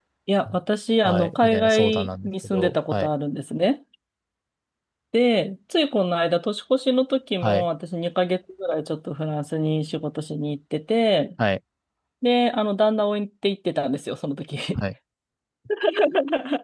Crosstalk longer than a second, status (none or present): present